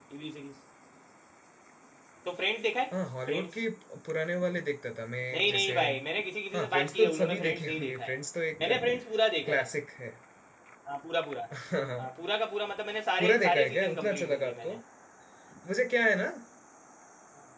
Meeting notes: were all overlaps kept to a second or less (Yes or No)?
No